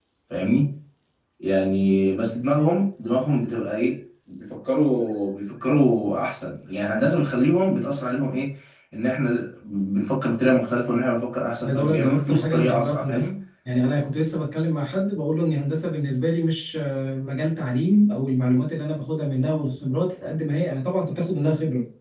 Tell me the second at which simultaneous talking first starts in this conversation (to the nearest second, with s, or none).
12 s